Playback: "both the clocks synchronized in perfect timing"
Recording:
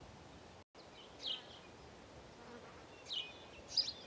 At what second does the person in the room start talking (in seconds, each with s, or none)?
none